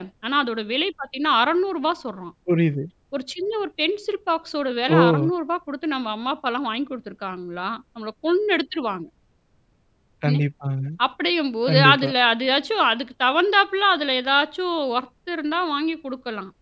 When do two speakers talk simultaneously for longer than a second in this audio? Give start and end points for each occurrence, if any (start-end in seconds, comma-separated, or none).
none